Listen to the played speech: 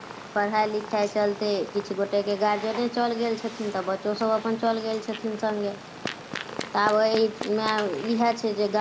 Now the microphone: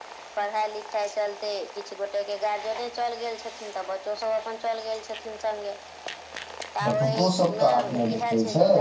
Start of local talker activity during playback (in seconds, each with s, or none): 6.8 s